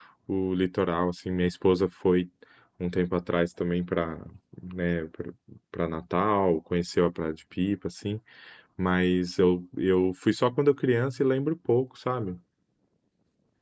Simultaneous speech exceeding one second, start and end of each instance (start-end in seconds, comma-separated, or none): none